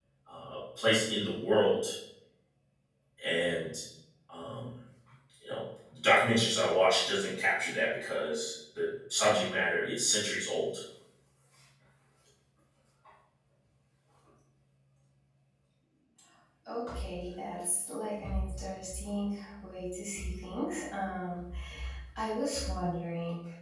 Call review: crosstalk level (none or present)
none